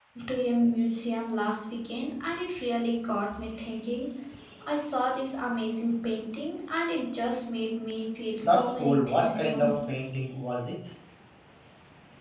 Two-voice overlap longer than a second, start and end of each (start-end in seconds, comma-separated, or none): 8.4-9.7